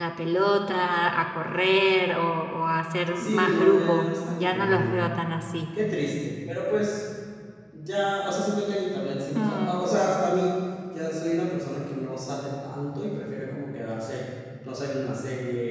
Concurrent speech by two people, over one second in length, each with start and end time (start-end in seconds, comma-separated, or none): 3.1-5.0